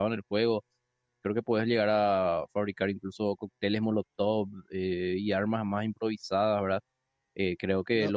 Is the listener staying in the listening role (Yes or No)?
Yes